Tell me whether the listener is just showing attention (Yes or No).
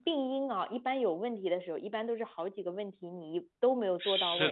No